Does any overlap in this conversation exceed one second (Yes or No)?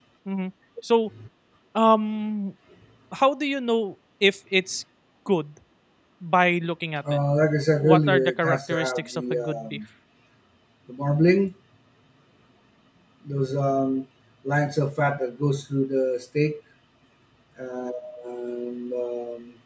Yes